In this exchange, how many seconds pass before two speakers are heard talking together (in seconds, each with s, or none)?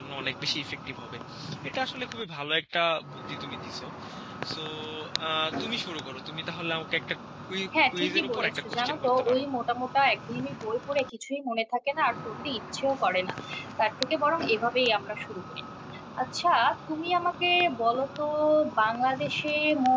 7.9 s